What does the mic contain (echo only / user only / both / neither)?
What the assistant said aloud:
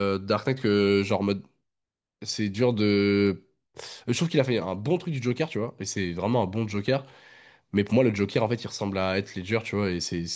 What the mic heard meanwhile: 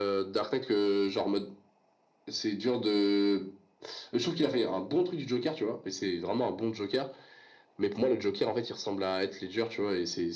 echo only